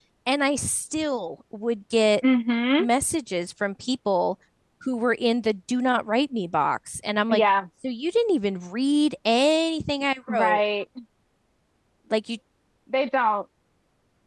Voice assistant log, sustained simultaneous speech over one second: none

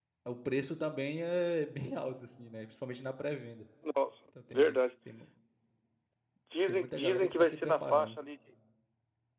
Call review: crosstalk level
present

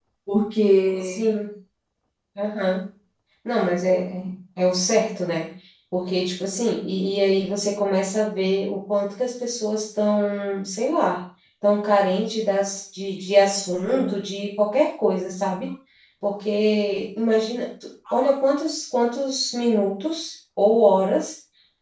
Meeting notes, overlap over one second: none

